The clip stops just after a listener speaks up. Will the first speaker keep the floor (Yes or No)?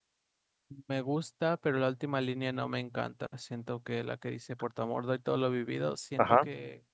Yes